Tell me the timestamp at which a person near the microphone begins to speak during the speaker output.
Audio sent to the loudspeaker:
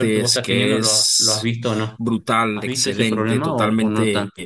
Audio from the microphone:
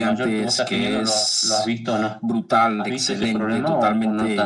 none

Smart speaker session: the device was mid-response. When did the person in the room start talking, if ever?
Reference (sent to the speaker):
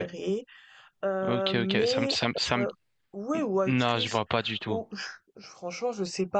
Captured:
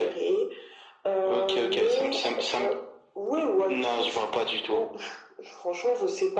none

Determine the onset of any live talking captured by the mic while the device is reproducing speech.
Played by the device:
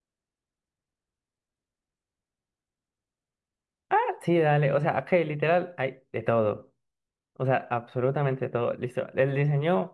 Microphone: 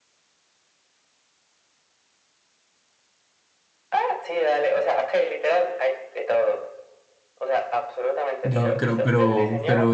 8.4 s

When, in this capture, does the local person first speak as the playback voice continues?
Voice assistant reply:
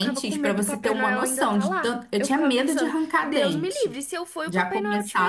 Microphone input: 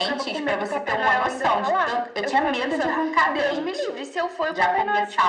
none

